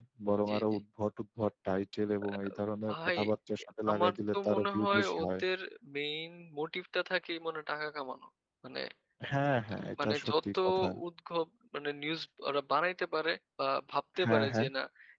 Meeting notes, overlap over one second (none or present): present